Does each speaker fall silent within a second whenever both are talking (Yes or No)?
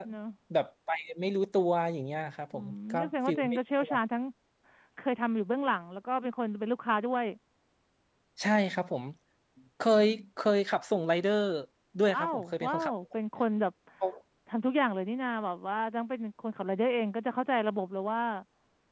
No